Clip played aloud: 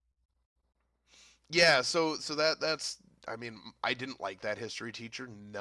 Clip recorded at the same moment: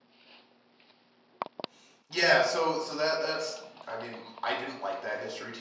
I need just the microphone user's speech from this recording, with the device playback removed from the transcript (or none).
none